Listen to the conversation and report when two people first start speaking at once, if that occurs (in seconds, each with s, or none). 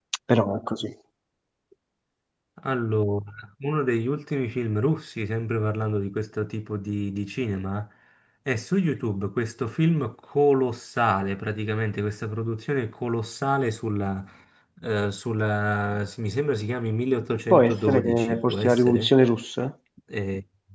17.5 s